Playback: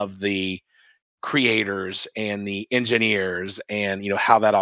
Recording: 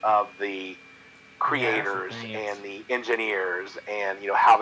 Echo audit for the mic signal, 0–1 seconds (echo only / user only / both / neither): echo only